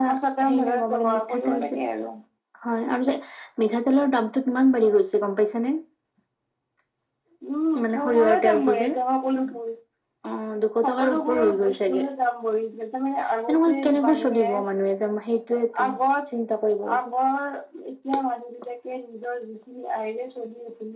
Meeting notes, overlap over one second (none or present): present